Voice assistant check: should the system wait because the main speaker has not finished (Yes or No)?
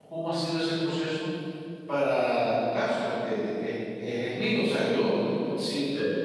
Yes